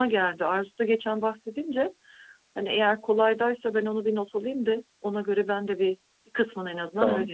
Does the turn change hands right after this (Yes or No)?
Yes